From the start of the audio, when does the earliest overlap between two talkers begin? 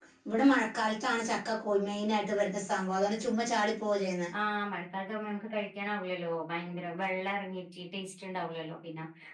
none

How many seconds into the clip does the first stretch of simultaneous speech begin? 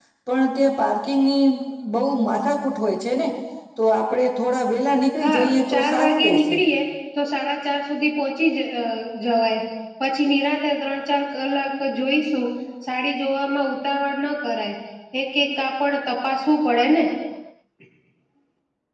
5.2 s

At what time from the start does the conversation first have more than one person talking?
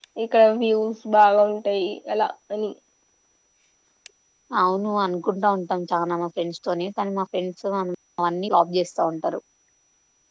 none

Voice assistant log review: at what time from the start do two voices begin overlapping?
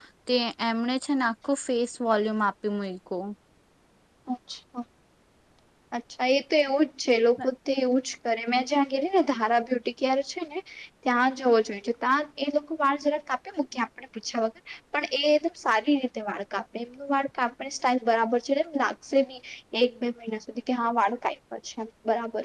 none

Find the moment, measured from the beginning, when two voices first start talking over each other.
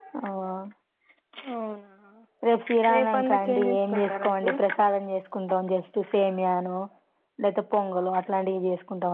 2.9 s

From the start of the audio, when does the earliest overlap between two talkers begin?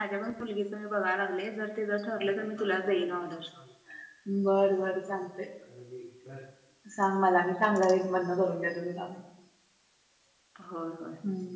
none

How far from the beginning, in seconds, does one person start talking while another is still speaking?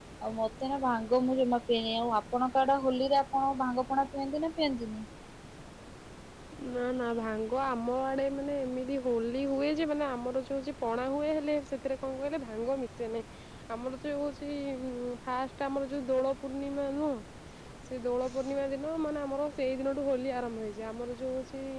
none

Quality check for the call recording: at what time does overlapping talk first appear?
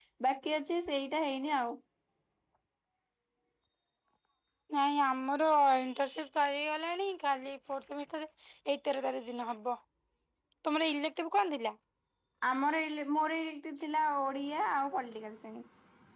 none

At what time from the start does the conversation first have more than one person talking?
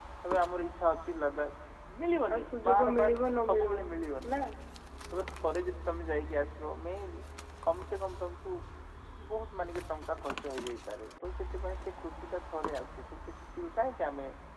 2.3 s

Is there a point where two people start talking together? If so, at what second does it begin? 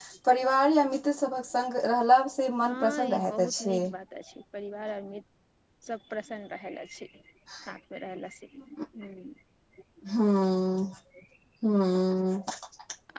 2.6 s

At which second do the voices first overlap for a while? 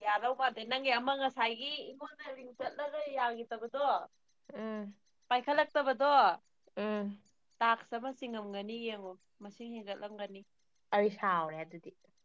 none

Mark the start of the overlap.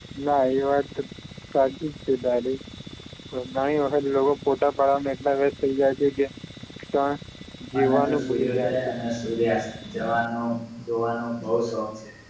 7.7 s

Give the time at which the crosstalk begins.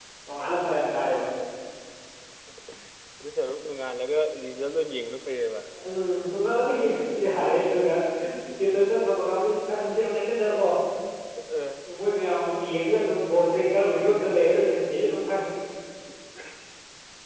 none

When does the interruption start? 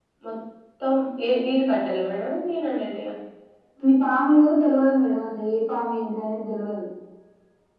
none

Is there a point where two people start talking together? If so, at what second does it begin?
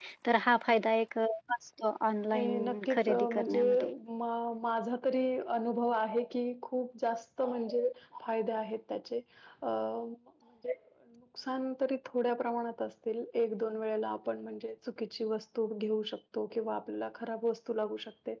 2.3 s

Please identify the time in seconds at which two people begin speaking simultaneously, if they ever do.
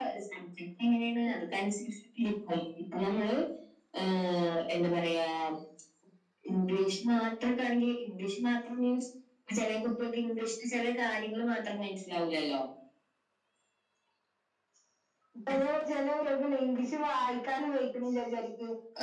none

